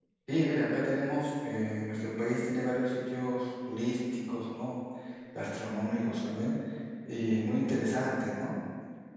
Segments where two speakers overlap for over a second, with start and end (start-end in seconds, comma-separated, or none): none